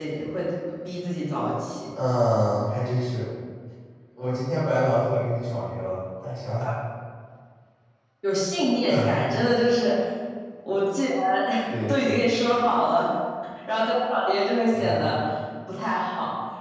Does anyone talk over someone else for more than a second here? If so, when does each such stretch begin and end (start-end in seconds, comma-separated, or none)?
none